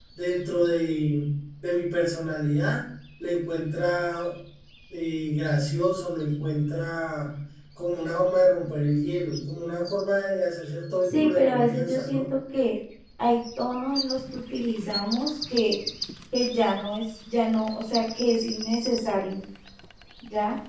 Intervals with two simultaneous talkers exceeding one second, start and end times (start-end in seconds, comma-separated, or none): 11.0-12.3